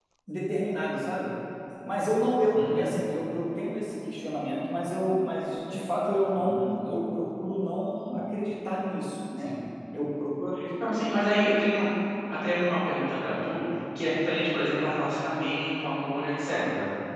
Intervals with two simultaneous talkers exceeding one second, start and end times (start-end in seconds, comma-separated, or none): none